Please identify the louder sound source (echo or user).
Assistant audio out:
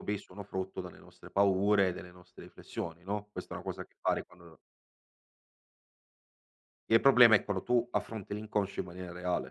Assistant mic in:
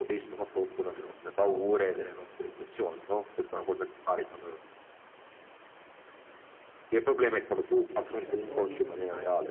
echo